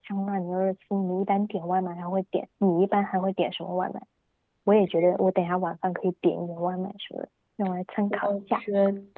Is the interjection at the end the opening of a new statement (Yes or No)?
Yes